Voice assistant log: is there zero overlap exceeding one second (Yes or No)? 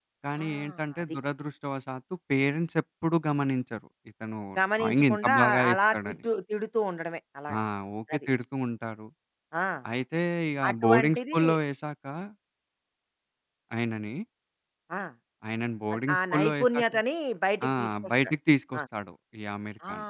No